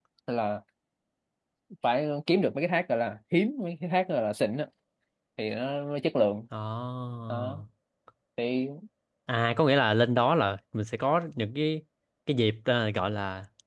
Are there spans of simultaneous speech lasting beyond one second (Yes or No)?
No